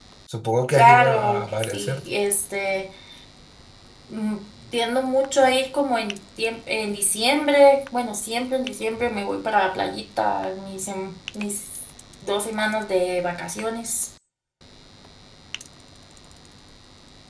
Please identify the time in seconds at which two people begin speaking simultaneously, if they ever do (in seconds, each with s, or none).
0.7 s